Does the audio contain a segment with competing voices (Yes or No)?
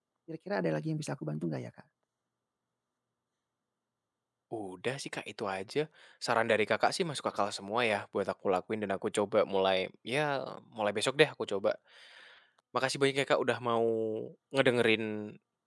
No